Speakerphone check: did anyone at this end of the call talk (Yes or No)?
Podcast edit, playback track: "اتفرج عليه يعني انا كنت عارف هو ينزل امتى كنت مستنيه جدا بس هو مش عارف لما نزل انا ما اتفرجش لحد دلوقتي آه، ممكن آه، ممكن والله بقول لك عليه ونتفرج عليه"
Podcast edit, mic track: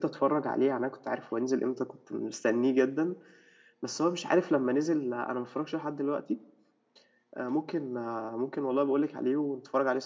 No